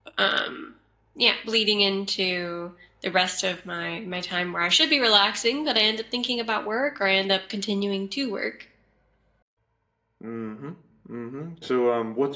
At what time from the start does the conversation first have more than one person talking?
none

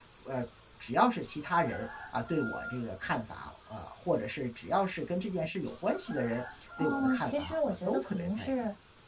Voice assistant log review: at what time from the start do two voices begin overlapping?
7 s

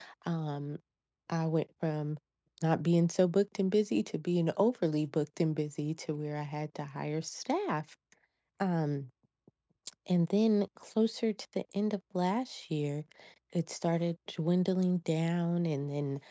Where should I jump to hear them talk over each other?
none

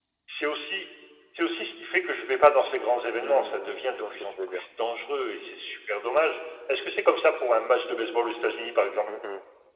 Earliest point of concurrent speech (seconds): 3 s

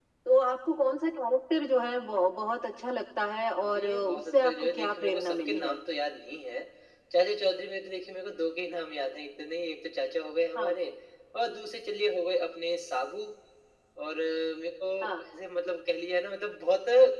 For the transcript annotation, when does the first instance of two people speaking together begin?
4 s

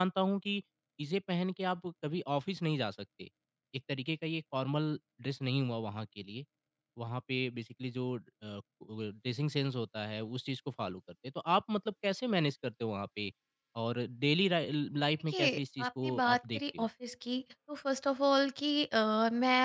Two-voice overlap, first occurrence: 15 s

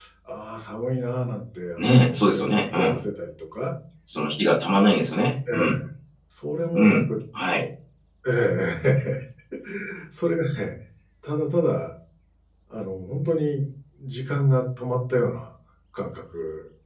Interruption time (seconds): 2 s

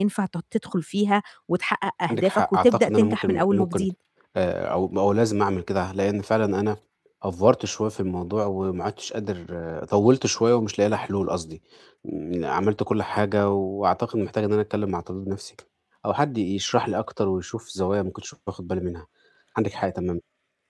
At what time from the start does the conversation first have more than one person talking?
2 s

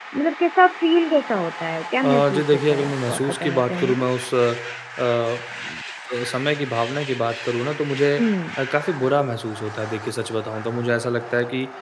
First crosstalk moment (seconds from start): 2 s

